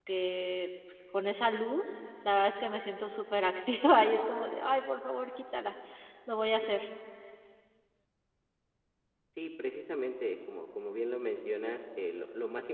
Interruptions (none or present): none